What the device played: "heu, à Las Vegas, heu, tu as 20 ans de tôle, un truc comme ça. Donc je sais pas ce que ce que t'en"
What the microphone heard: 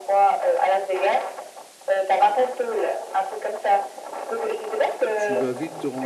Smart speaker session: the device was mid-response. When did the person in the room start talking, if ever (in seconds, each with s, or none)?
5.1 s